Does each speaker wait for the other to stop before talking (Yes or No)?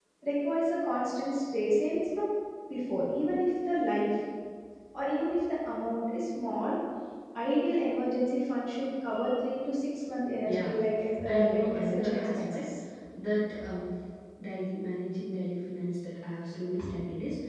No